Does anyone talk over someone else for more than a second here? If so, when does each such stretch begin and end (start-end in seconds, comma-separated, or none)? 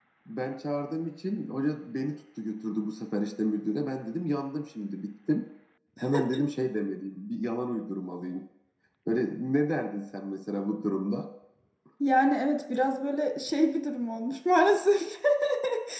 none